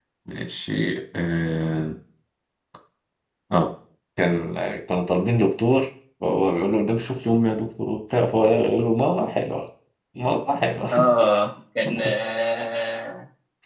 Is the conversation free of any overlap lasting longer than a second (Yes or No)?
Yes